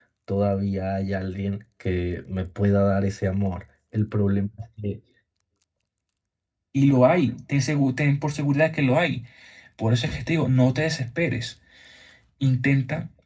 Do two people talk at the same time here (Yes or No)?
No